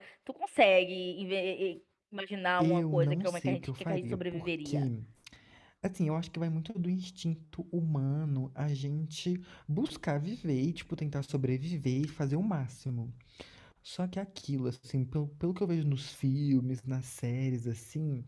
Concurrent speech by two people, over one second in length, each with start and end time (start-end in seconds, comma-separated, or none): 2.6-4.8